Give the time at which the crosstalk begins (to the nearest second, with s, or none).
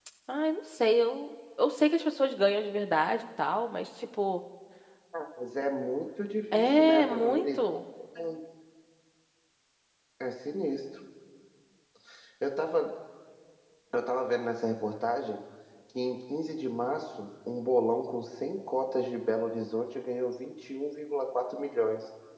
7 s